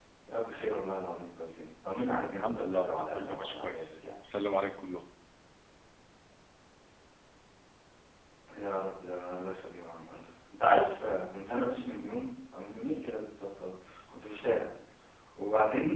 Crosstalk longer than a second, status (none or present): present